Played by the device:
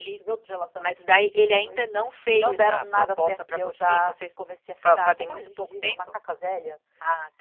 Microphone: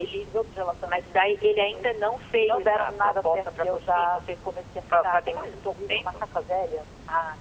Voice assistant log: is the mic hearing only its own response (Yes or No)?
Yes